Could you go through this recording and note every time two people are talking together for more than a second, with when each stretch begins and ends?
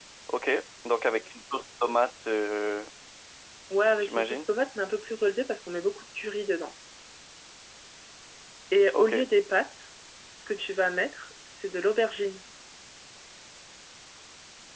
none

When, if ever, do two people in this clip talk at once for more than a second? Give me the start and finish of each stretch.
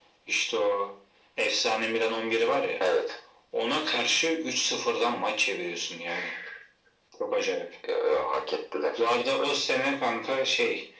none

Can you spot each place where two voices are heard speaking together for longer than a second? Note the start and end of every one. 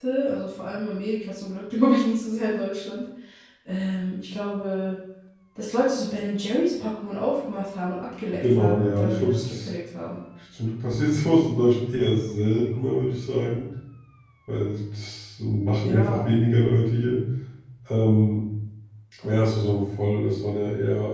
8.4-9.7

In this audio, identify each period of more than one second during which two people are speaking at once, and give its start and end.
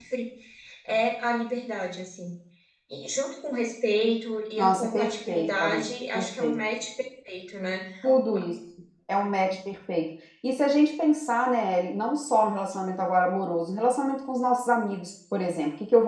4.6-6.6

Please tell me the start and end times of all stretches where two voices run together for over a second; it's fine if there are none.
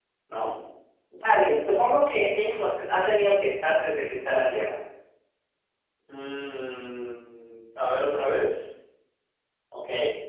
none

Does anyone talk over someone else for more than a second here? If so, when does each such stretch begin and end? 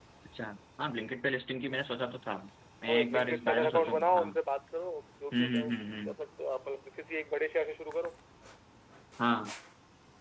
2.9-4.3

